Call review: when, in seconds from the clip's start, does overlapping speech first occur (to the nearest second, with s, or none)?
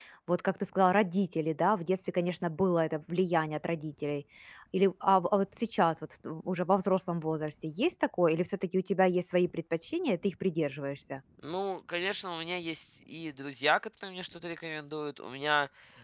none